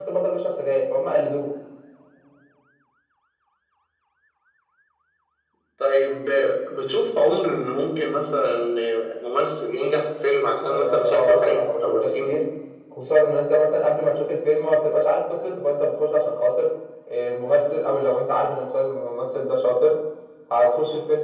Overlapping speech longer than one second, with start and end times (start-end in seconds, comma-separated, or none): 10.7-12.3